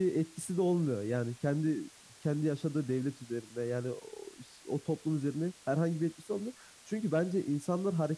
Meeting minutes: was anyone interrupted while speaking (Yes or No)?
No